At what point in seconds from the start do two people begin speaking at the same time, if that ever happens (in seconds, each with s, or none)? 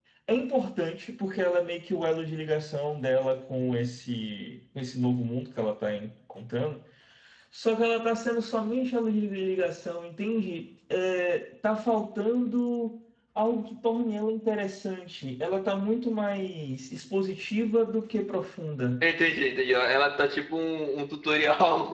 none